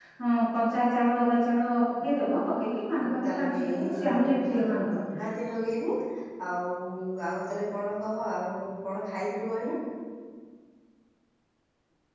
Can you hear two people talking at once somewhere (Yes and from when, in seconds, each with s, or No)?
Yes, from 3.0 s